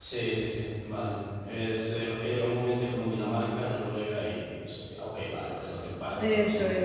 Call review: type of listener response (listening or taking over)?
taking over